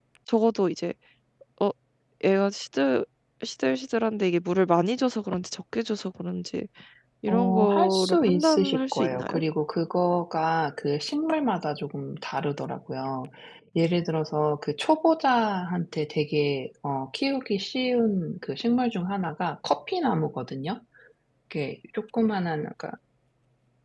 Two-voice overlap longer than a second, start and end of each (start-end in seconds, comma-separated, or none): 7.3-9.4